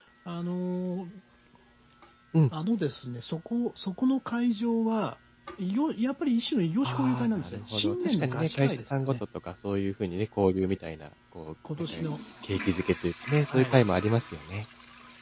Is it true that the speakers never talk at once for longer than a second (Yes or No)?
No